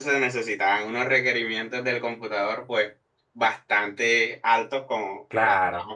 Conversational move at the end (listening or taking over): listening